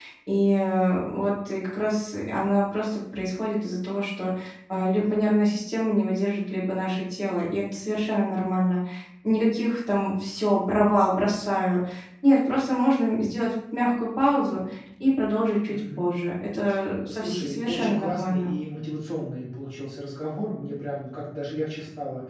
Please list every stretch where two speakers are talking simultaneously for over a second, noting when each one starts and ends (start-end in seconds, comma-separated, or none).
17.1-18.5